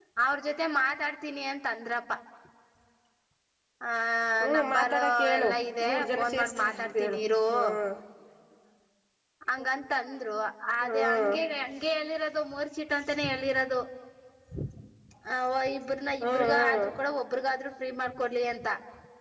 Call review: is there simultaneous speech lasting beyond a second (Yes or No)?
Yes